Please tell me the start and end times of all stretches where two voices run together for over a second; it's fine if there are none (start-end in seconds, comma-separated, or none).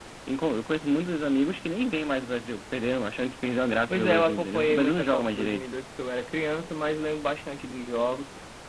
3.9-5.6